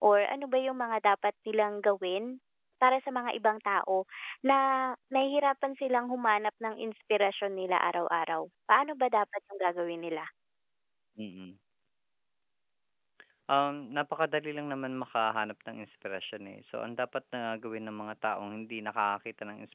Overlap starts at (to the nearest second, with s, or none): none